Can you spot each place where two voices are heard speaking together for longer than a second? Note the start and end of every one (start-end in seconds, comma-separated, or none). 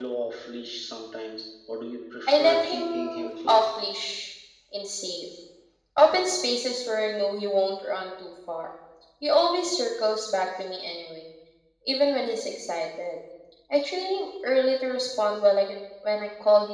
2.3-3.6